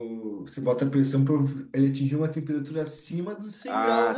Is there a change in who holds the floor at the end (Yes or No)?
Yes